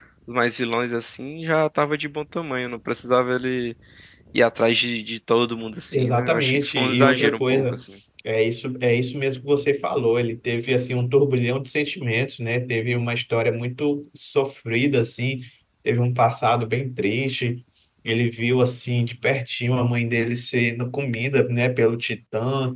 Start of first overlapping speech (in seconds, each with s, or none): 5.9 s